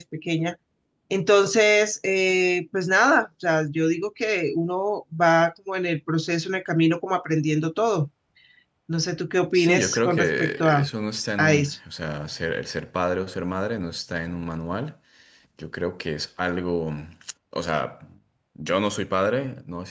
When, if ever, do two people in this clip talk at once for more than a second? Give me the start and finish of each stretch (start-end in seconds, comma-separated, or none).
9.5-10.9